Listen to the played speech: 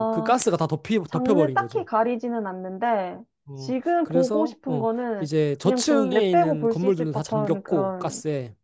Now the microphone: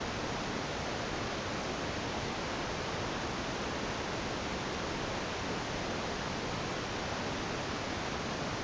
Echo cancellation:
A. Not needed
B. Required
A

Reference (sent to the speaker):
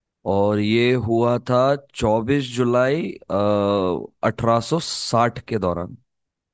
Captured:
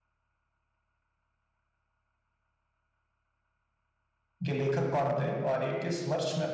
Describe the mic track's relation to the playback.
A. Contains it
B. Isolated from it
B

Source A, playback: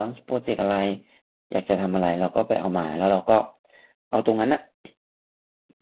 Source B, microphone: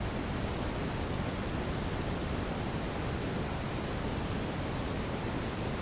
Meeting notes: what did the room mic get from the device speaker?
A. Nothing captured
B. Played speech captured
A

